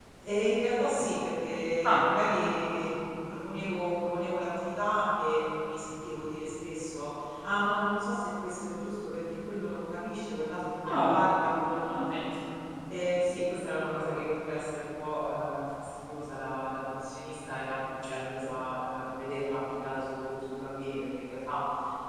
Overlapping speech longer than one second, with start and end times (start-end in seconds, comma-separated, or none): none